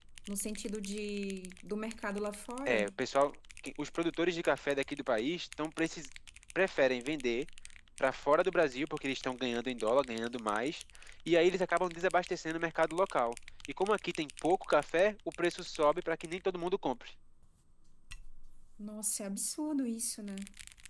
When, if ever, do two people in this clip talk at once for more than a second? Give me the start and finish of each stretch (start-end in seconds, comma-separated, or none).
none